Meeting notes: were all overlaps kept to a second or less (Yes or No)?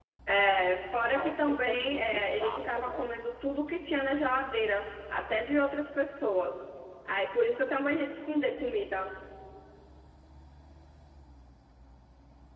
No